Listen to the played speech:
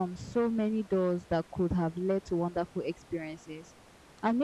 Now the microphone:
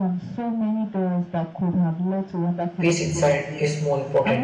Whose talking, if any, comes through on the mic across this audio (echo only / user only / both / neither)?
both